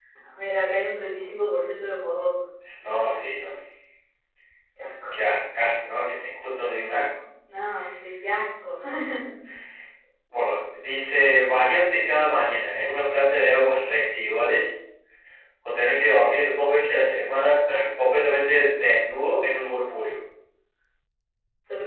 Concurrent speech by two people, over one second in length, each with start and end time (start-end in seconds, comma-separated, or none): none